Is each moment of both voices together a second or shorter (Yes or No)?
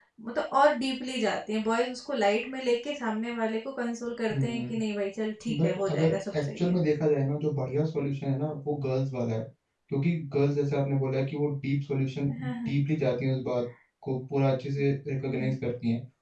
No